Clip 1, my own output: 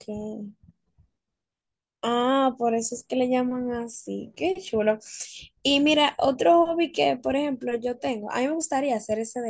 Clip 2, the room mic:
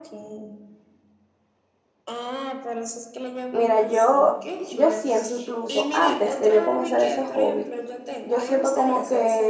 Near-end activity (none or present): present